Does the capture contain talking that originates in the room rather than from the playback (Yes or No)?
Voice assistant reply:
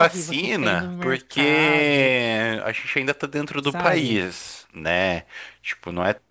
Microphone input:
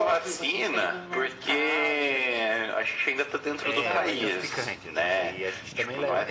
Yes